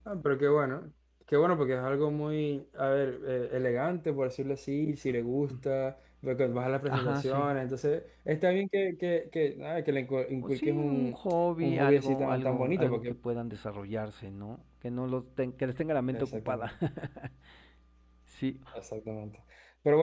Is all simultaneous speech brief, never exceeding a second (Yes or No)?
No